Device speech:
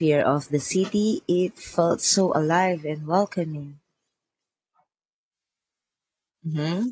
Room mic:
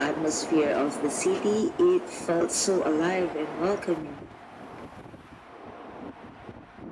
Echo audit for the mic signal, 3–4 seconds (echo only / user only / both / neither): echo only